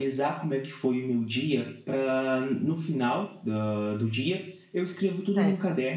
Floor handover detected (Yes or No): No